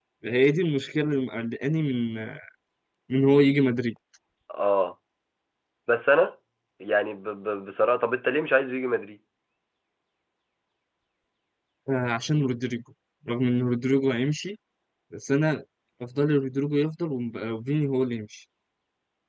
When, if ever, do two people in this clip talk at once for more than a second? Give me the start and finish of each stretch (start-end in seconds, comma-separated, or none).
none